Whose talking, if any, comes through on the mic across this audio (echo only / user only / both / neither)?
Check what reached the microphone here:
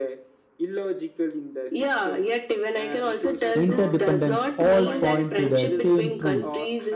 both